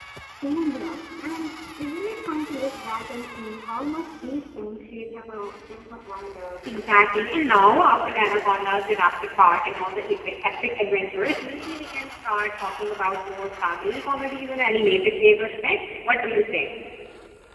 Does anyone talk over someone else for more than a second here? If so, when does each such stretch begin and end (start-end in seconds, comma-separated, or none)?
6.6-8.0